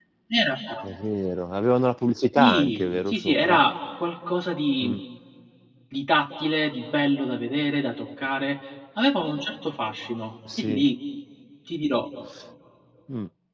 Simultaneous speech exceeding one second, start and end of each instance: 2.4-3.6

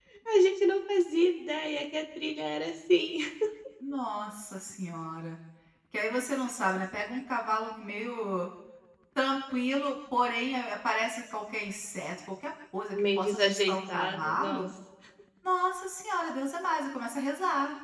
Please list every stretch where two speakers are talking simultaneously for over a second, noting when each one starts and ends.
12.9-14.7

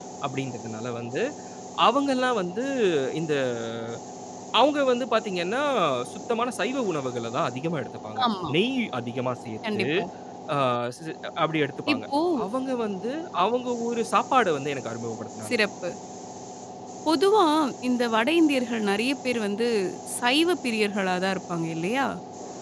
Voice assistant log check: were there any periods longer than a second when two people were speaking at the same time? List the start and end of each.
none

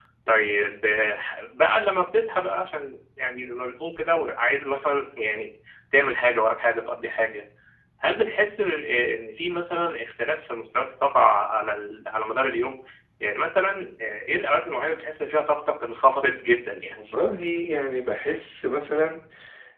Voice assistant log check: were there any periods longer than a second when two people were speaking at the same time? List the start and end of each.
none

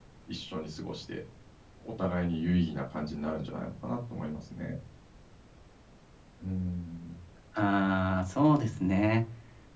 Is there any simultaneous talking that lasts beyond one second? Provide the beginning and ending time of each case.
none

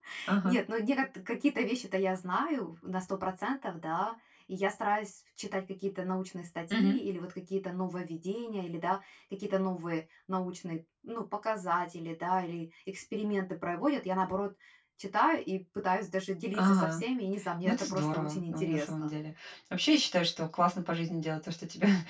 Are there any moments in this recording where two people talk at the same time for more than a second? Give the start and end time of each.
17.6-19.1

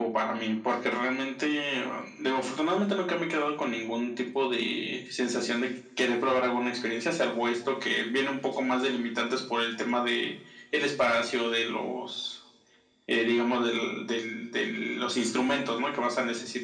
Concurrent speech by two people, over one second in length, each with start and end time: none

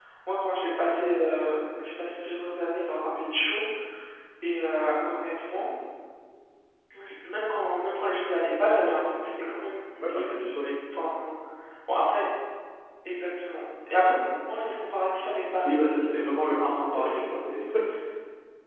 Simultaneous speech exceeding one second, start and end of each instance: 15.6-17.2

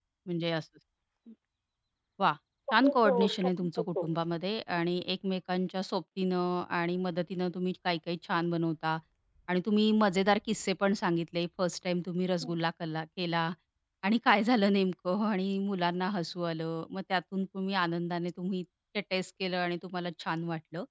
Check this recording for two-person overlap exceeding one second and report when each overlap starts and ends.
2.8-4.1

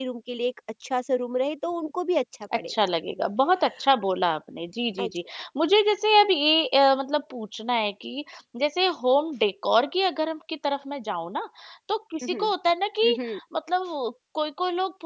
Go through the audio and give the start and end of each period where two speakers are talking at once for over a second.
none

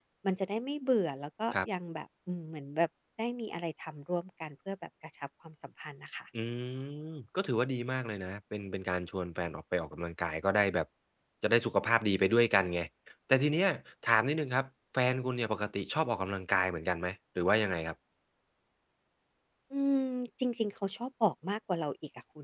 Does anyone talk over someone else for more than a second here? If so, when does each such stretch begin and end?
none

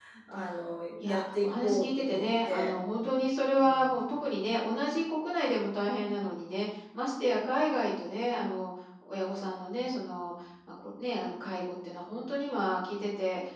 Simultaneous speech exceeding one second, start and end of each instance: 1.0-2.7

